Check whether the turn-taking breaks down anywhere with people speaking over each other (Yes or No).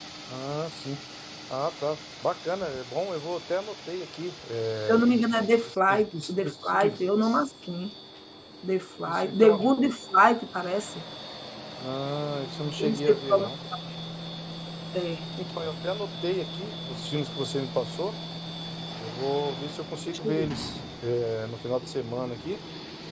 Yes